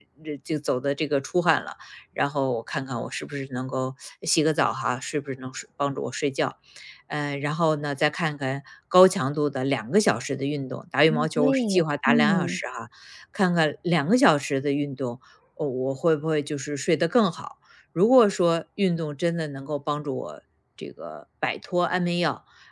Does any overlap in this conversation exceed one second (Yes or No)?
Yes